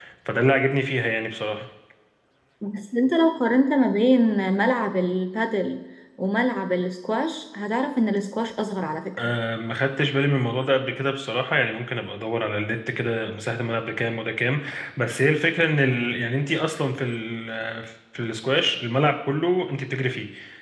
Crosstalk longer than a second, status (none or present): none